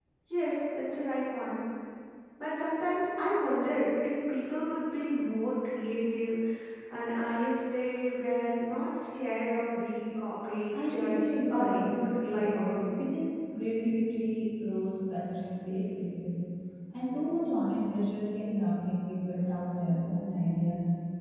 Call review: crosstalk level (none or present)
present